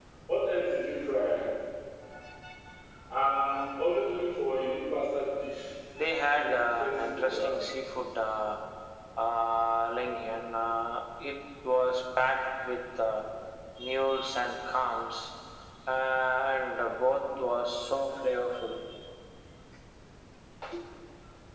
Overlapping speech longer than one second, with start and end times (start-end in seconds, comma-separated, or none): 6.3-7.5